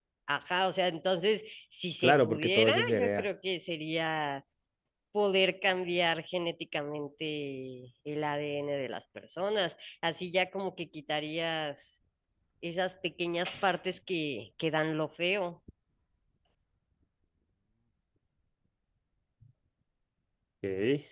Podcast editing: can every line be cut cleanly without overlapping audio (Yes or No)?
No